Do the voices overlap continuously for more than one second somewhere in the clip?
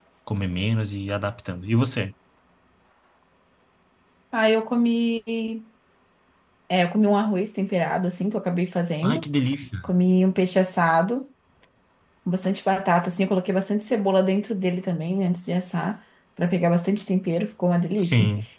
No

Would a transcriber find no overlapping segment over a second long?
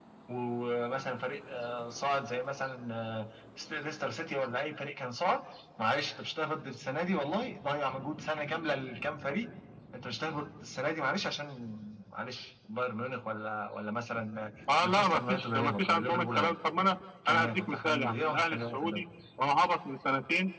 No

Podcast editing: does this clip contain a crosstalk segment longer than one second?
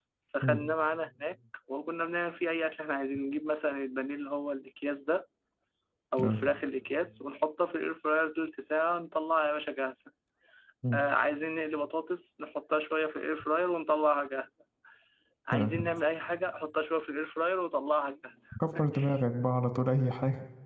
No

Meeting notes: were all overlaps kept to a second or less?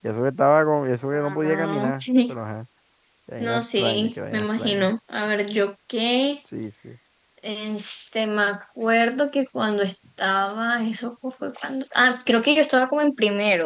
No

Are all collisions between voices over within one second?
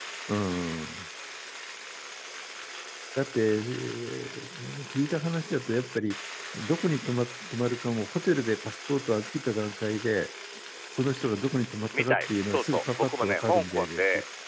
No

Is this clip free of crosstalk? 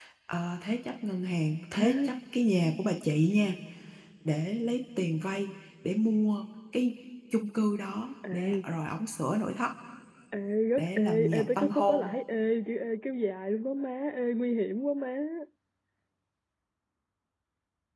No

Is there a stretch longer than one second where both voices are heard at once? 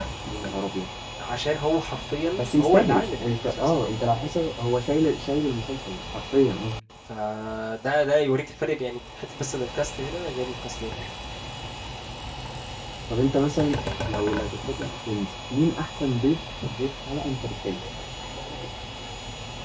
Yes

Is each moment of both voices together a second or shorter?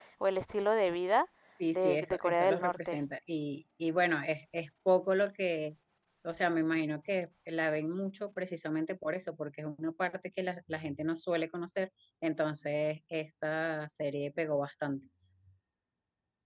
No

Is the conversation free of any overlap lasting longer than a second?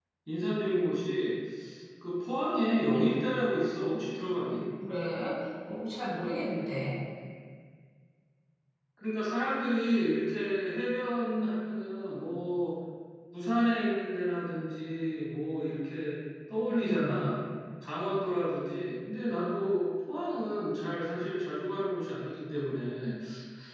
Yes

